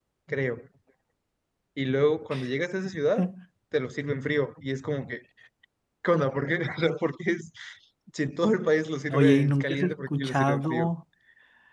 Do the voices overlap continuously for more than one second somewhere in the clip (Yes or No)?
Yes